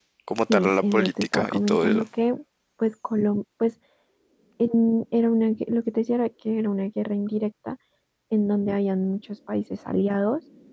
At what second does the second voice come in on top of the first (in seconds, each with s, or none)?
0.5 s